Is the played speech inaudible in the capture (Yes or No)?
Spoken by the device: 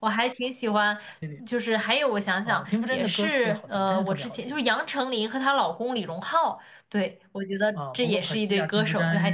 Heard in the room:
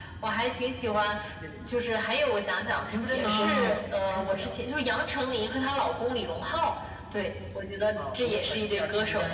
No